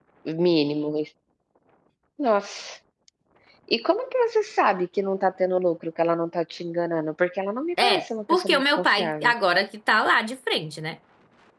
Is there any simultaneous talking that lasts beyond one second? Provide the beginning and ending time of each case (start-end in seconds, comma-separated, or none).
7.8-9.3